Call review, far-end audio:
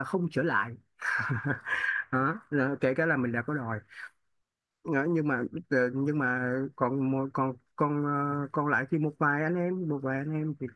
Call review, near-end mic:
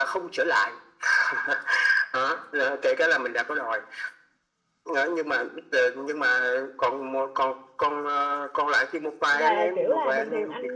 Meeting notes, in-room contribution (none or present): present